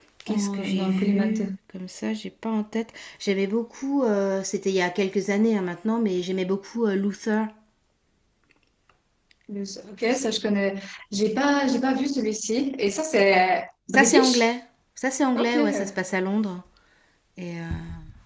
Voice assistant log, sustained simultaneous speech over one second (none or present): present